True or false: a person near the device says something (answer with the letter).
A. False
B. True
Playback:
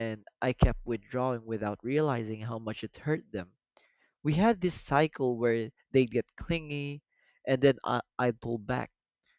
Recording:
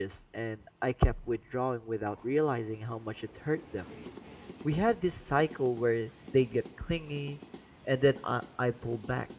A